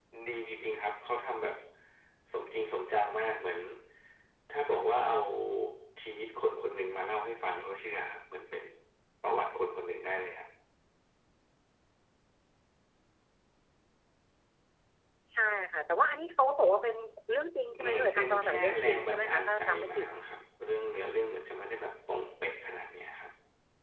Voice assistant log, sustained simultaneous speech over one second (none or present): present